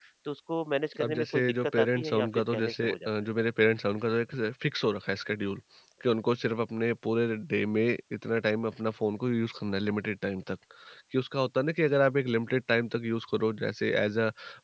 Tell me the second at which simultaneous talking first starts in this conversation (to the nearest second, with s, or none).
1 s